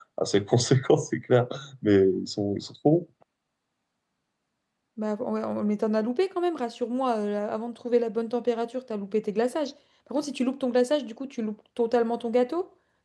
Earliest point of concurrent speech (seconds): none

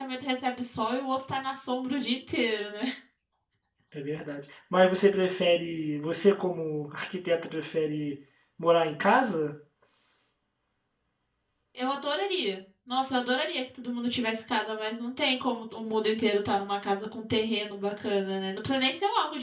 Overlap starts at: none

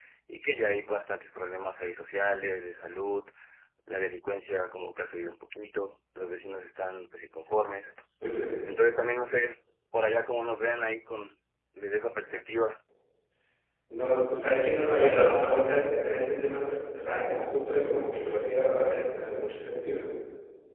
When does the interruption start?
none

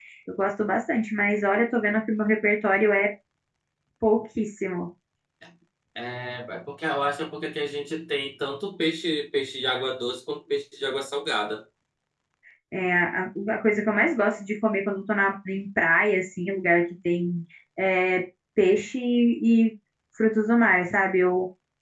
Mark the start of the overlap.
none

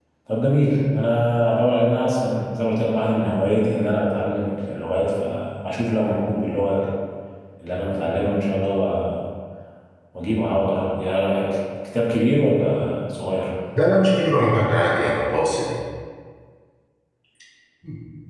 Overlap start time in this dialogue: none

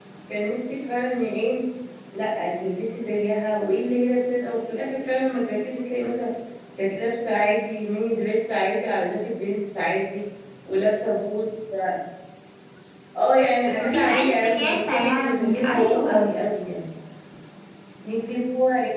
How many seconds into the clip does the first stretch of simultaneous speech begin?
13.8 s

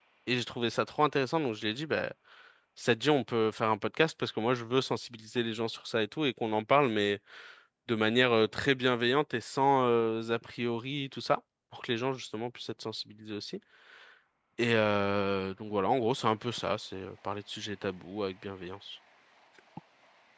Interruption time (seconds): none

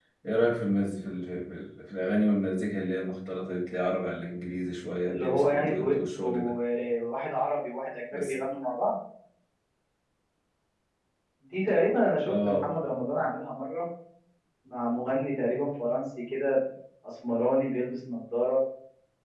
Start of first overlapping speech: 5.1 s

